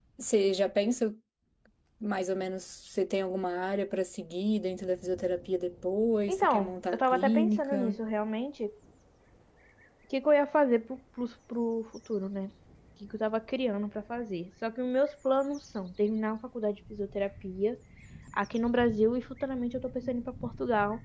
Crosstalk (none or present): present